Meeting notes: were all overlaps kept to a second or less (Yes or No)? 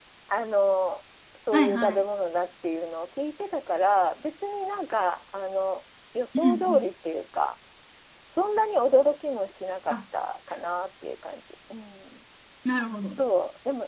Yes